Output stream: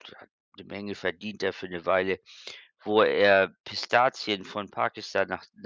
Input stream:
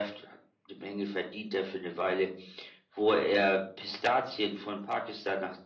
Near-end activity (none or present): none